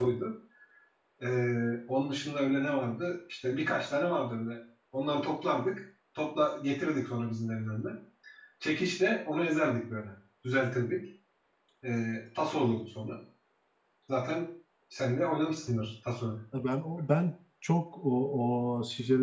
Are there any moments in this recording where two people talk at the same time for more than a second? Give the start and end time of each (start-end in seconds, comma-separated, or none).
none